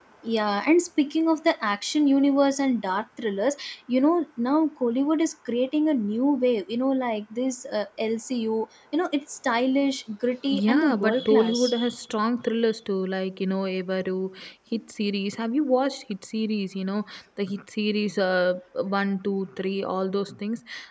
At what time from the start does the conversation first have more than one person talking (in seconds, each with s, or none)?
10.5 s